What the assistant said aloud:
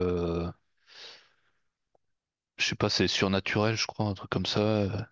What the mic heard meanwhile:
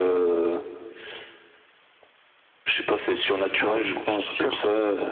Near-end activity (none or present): present